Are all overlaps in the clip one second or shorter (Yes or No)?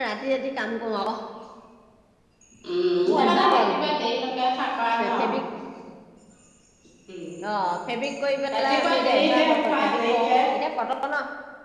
No